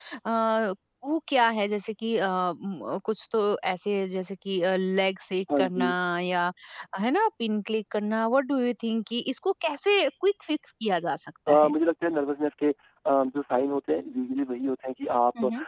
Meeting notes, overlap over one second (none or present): none